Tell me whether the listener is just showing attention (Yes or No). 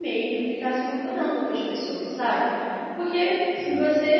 Yes